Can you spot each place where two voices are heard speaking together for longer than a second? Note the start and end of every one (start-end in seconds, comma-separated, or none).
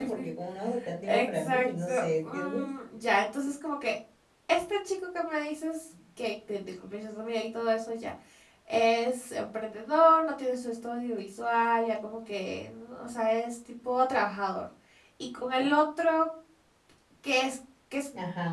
1.1-2.7